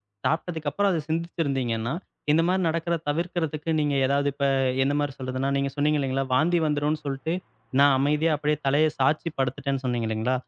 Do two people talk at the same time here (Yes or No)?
No